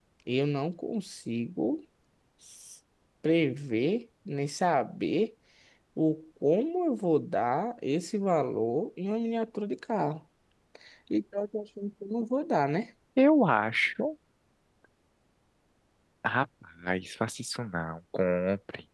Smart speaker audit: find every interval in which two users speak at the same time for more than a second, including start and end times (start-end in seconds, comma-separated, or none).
none